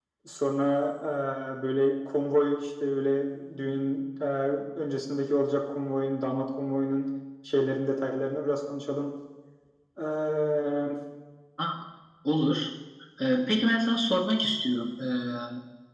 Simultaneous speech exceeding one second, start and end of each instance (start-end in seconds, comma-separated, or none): none